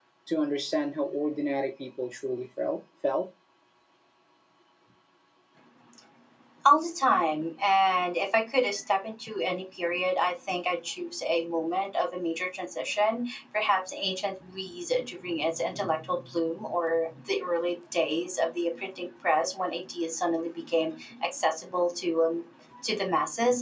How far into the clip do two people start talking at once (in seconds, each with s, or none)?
none